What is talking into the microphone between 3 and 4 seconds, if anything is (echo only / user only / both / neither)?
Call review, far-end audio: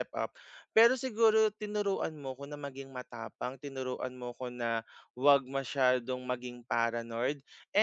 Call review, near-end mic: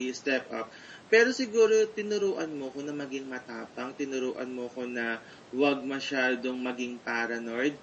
echo only